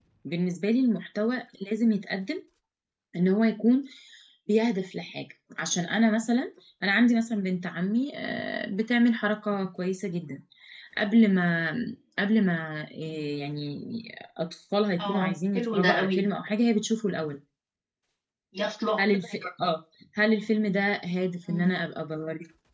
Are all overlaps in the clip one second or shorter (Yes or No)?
No